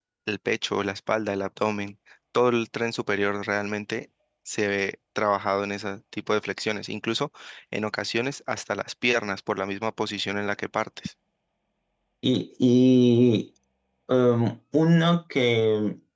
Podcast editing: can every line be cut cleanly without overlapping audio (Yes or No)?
Yes